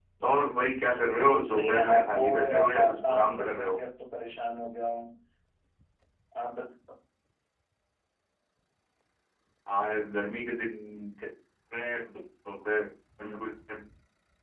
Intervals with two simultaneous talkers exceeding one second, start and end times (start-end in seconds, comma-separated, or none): 1.3-3.8